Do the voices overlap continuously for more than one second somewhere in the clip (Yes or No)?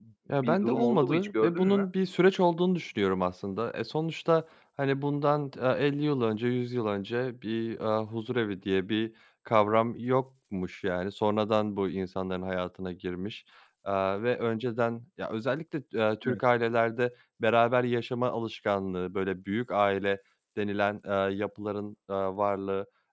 Yes